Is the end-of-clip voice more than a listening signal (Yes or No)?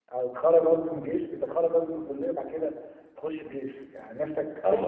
Yes